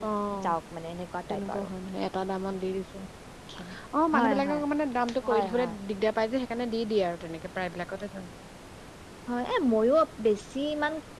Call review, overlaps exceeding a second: none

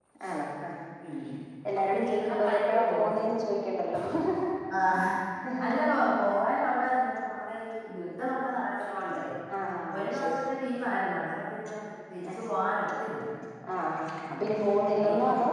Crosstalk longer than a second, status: present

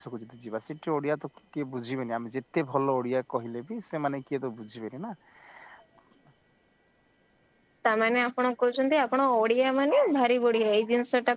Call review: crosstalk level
none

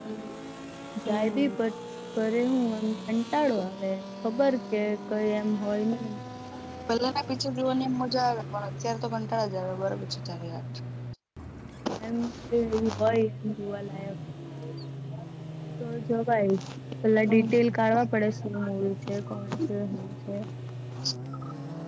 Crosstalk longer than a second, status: none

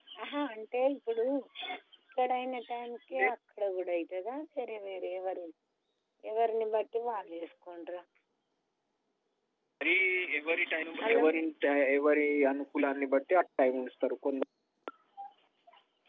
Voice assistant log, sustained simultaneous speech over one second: none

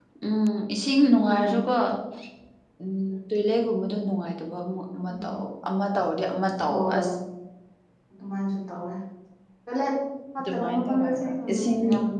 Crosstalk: present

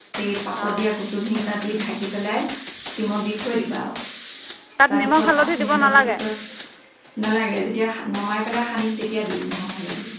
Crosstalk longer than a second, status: present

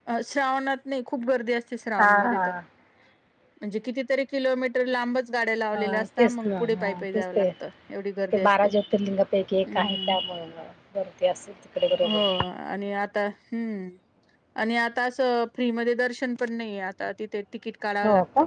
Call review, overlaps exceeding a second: present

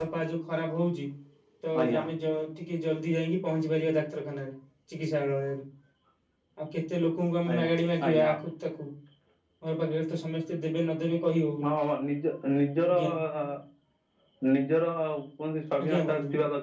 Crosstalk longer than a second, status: none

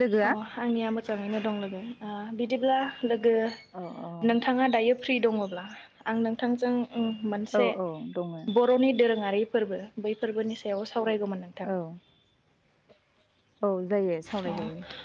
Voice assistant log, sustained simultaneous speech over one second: none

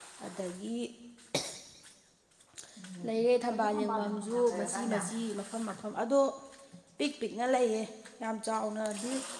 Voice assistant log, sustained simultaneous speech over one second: present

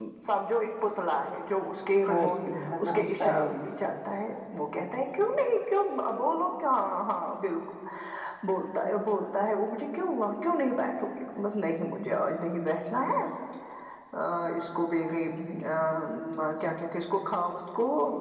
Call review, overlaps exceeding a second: present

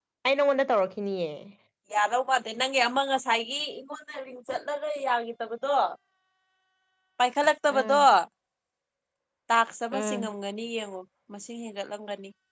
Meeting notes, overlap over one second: none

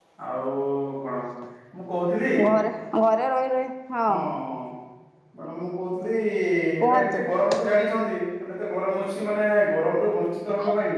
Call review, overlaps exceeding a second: none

